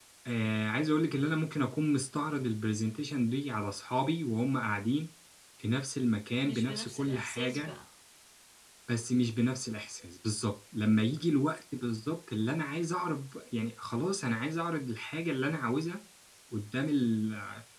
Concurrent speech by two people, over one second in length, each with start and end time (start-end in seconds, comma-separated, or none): 6.4-7.8